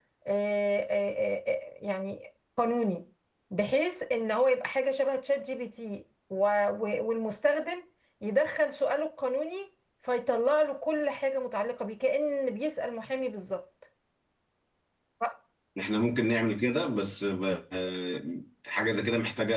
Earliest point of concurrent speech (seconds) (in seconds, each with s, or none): none